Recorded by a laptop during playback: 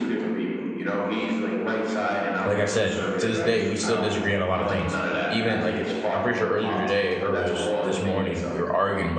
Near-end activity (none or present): present